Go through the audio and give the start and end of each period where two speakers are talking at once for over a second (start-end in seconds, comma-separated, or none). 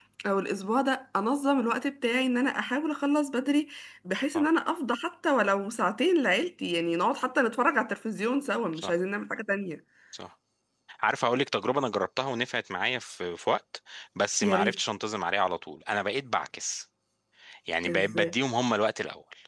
none